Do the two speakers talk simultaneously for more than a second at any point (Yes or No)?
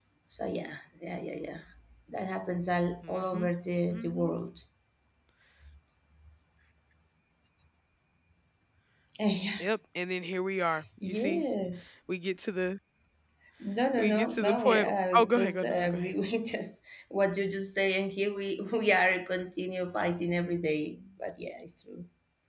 Yes